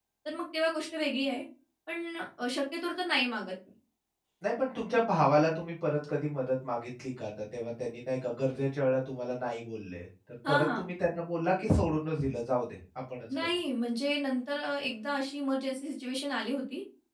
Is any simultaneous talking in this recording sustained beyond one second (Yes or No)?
No